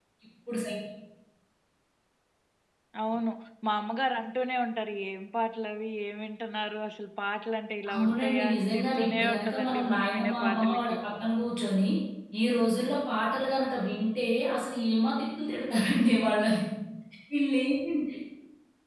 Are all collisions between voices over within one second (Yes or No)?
No